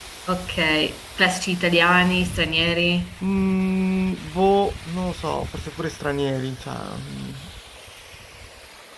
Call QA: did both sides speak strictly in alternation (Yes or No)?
Yes